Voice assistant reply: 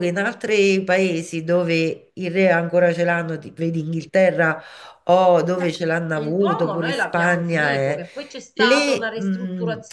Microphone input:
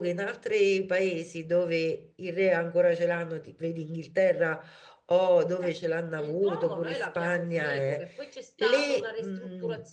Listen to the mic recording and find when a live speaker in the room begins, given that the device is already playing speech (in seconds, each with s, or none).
none